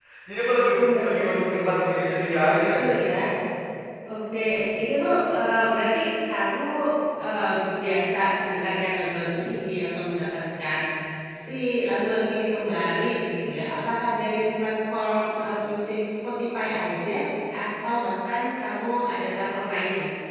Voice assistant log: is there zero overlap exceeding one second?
No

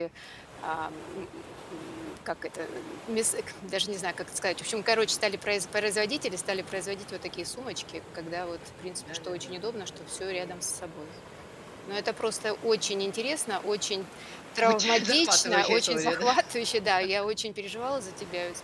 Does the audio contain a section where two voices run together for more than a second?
Yes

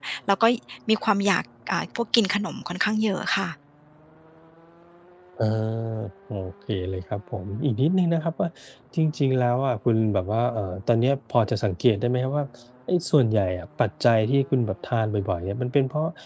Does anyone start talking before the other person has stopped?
No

